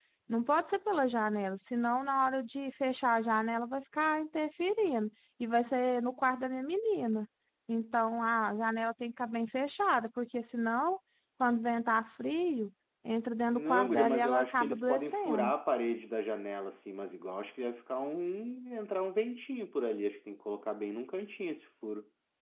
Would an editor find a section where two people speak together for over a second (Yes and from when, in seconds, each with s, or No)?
Yes, from 13.5 s